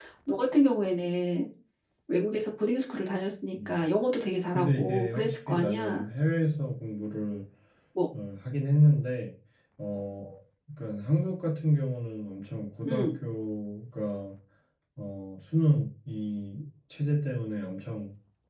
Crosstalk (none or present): present